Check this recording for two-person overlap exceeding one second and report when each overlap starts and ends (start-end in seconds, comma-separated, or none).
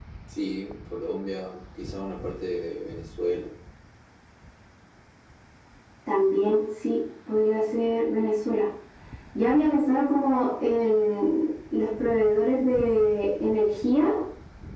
none